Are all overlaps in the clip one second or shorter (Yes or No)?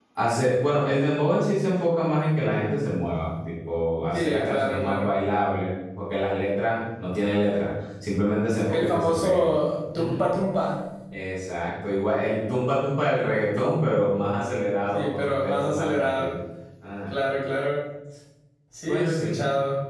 No